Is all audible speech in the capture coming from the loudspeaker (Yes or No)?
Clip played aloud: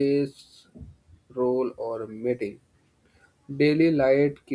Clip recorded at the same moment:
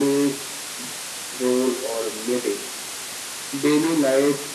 Yes